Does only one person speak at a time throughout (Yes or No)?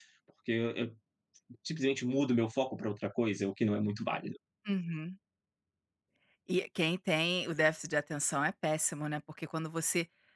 Yes